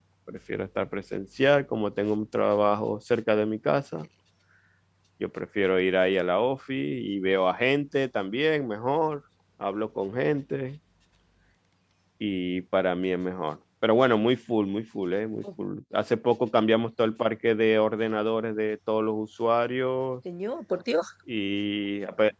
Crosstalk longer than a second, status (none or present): none